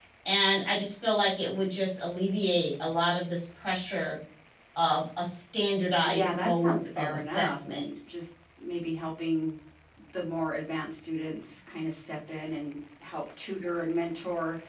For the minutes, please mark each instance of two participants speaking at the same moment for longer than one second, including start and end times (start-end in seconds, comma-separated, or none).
6.0-7.8